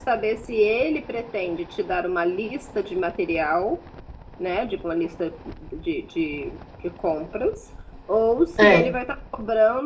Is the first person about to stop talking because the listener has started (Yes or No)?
No